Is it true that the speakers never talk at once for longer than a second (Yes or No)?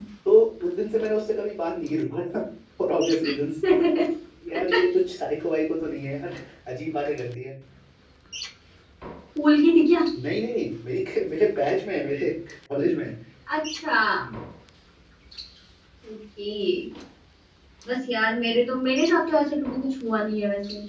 Yes